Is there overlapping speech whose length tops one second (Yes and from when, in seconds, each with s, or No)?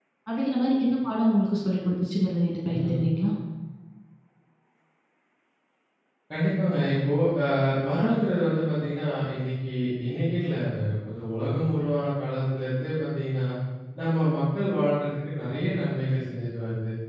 No